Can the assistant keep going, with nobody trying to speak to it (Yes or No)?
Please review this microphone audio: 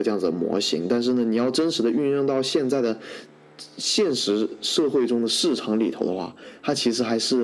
Yes